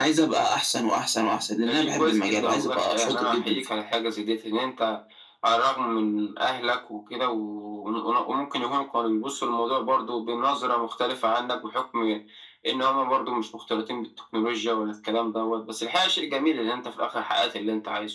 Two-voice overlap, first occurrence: 1.7 s

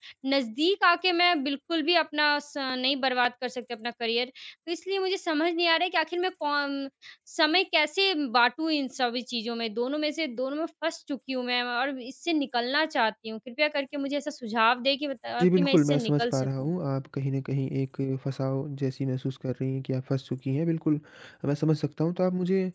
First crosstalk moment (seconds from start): 15.4 s

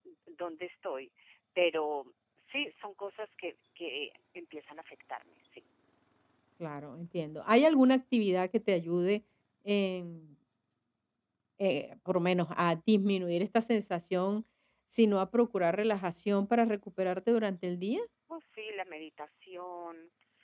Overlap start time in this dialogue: none

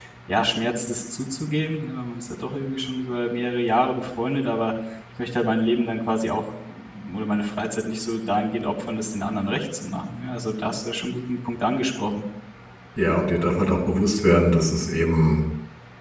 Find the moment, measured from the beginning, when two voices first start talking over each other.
none

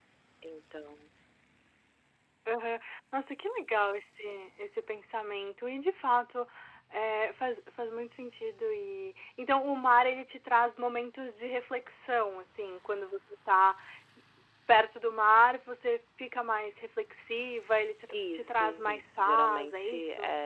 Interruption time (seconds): 18.1 s

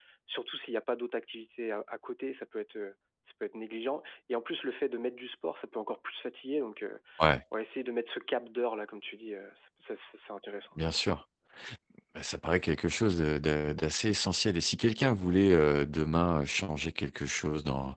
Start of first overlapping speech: none

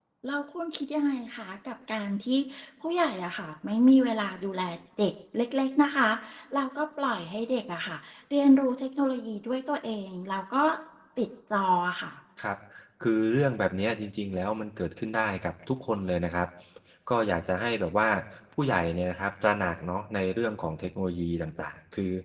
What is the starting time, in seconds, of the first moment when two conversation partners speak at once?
none

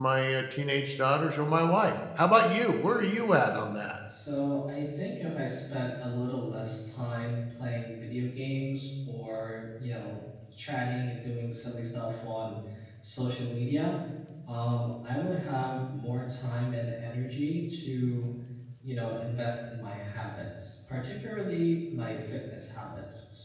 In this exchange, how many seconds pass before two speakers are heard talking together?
none

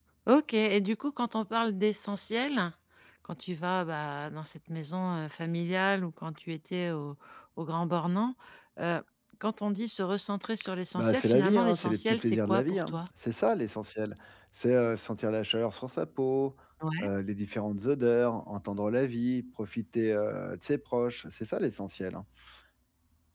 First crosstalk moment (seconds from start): 11.0 s

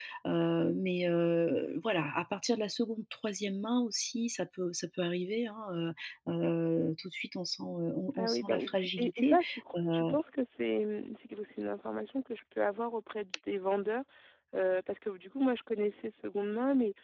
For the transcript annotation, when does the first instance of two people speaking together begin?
8.1 s

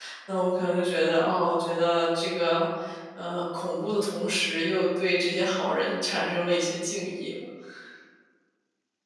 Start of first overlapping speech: none

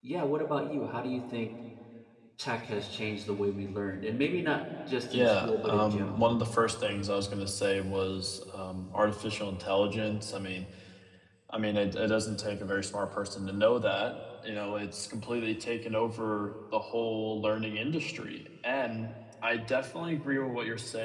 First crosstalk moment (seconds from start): 5.1 s

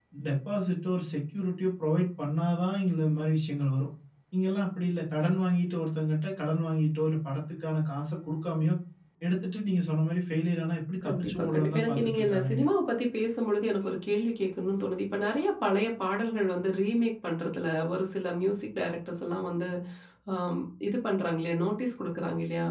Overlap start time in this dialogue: 11.0 s

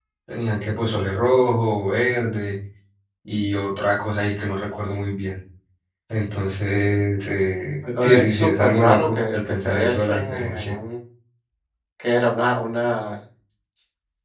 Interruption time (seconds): 7.8 s

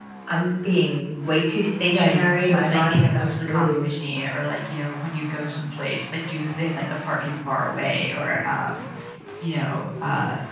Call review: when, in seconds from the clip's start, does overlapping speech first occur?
1.8 s

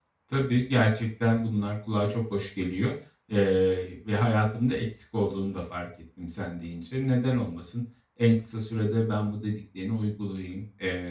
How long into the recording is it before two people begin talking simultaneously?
none

